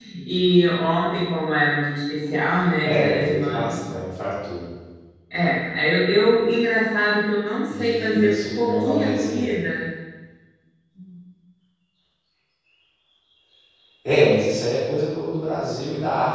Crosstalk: present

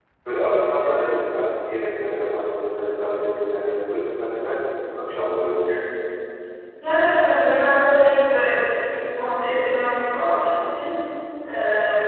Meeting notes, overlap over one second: none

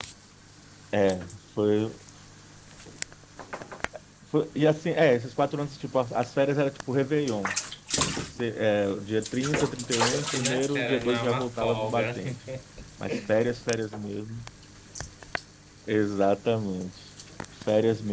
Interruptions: present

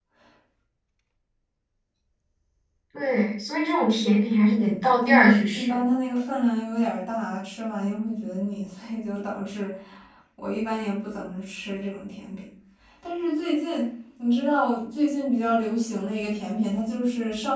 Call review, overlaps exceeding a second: present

